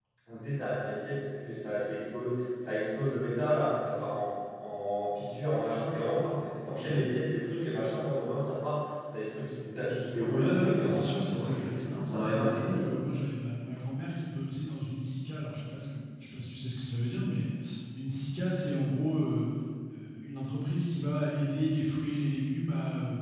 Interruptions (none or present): present